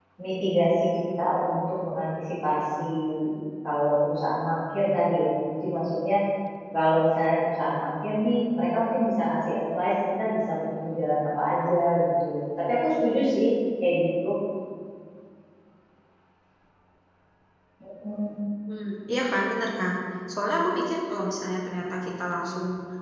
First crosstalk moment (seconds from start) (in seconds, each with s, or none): none